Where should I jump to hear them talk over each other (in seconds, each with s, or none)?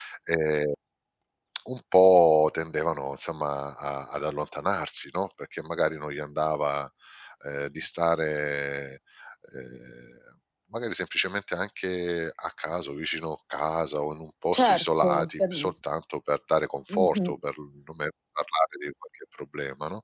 14.5 s